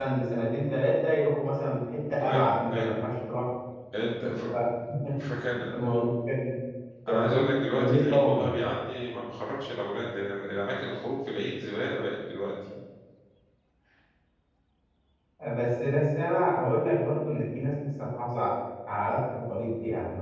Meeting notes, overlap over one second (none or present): present